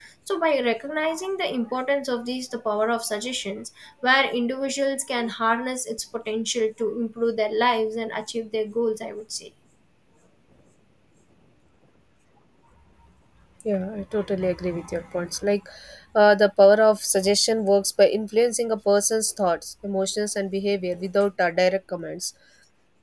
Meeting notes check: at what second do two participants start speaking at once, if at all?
none

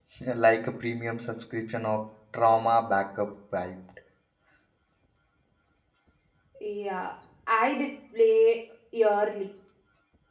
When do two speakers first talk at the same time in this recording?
none

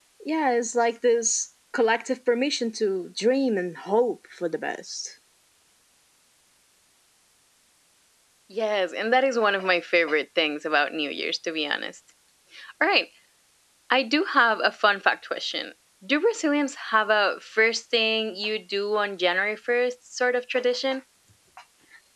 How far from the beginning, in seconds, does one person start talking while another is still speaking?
none

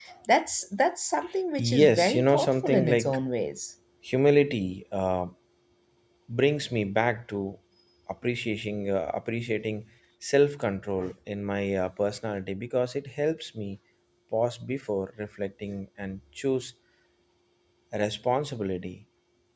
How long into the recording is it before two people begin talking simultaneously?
2 s

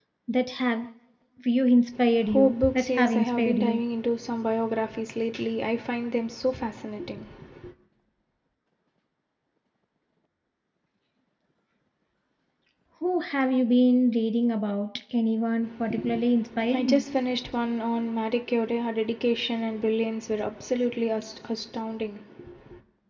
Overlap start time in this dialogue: 2 s

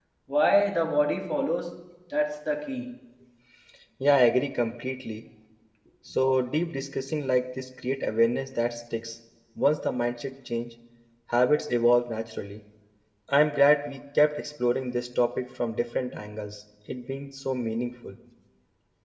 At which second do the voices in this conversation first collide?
none

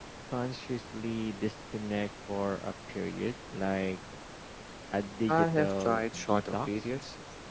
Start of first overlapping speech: 5 s

